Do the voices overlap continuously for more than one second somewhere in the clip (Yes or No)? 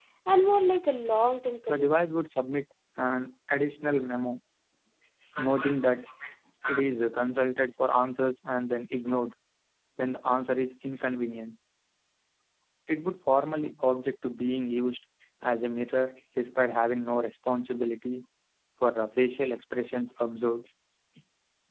No